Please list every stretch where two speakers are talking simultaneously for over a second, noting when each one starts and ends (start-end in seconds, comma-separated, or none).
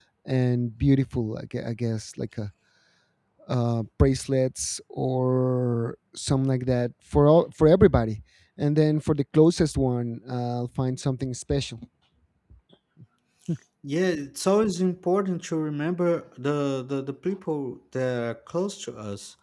none